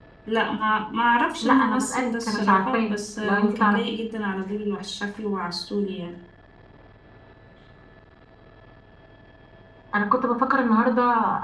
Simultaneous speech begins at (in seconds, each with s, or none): 1.4 s